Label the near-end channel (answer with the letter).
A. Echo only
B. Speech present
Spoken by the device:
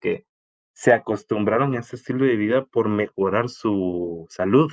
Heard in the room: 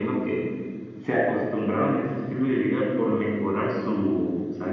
A